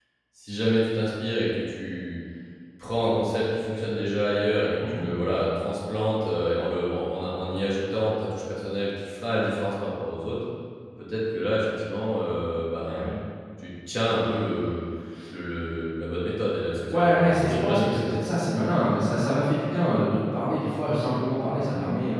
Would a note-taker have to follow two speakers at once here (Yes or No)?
Yes